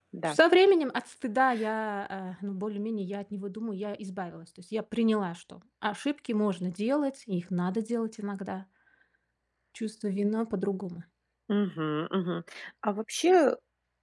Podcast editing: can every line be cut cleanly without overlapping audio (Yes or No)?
Yes